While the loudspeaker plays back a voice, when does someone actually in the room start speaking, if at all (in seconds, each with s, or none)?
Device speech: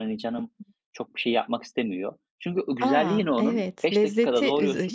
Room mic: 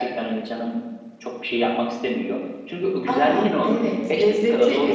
none